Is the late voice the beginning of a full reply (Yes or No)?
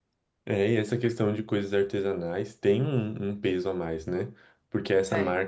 No